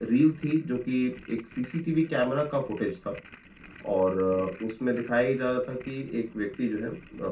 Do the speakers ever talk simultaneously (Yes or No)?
No